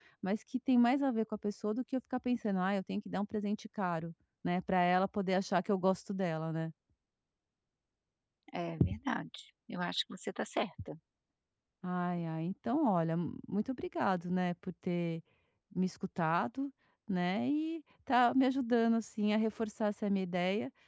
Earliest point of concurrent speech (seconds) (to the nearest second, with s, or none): none